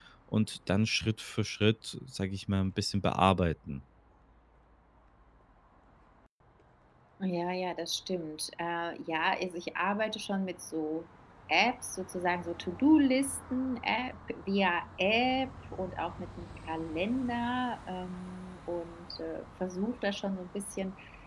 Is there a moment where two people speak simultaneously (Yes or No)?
No